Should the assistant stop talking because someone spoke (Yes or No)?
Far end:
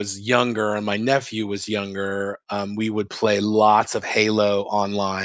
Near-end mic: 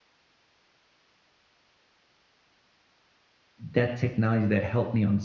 Yes